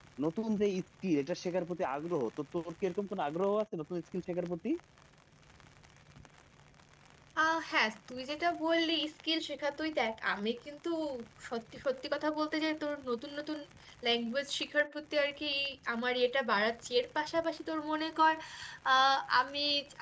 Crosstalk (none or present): none